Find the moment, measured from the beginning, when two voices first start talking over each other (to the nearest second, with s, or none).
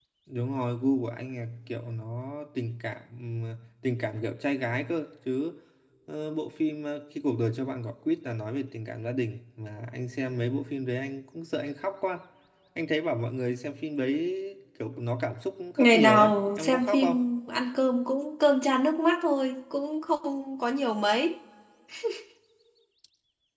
16 s